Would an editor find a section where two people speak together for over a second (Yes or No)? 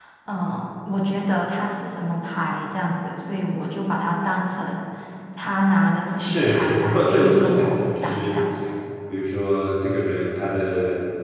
Yes